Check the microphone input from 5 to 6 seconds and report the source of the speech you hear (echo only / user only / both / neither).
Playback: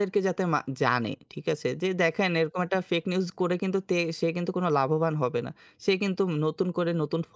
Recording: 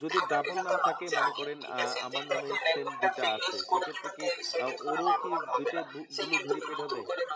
both